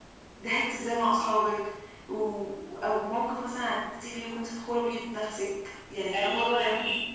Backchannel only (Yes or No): No